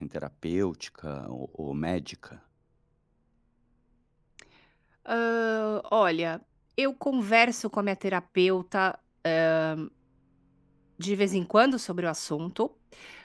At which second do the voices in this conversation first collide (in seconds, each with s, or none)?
none